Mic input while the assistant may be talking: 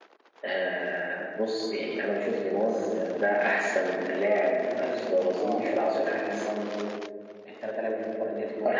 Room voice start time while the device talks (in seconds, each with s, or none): 2.5 s